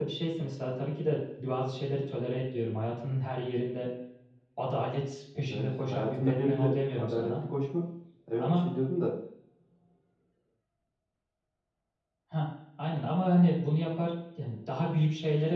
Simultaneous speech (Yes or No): Yes